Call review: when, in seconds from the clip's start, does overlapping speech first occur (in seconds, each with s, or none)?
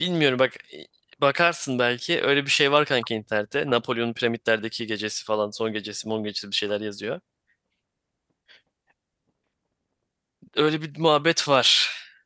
none